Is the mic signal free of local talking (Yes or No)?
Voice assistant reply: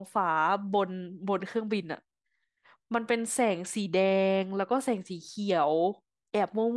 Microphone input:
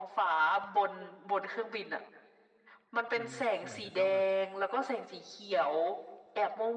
No